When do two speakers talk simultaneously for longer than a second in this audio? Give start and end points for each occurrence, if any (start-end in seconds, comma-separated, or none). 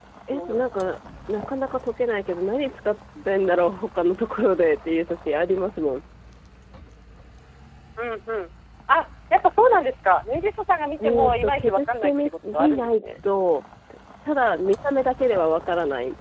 11.0-13.0